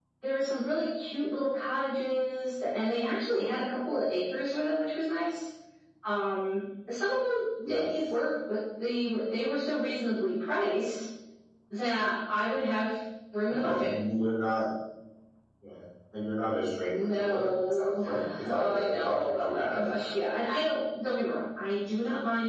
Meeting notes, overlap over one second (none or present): present